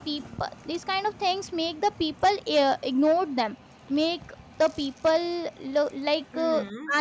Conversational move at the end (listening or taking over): listening